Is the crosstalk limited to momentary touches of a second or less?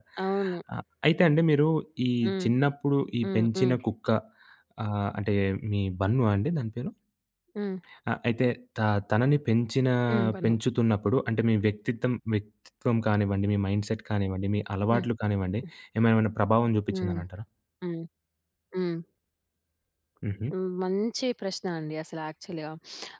Yes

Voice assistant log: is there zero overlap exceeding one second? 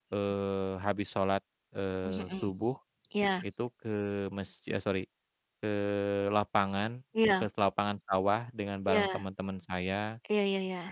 Yes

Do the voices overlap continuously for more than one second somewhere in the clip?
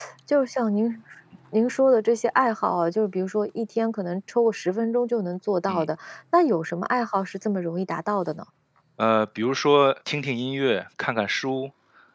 No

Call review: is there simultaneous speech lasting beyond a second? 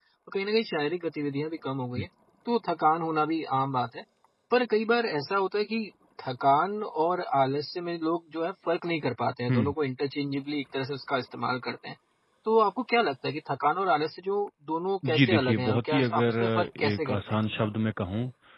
Yes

